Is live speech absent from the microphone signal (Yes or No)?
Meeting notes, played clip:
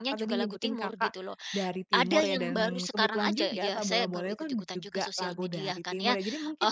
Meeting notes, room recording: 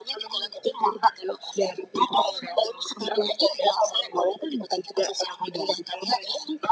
Yes